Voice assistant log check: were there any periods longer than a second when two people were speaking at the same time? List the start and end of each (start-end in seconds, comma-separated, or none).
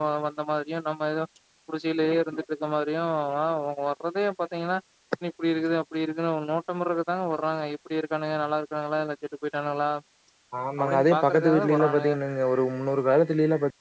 10.8-12.1